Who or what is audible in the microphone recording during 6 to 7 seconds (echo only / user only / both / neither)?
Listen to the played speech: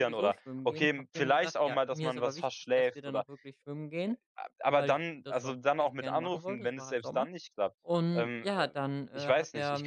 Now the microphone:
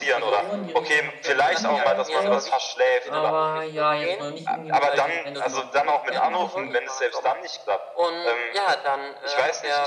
both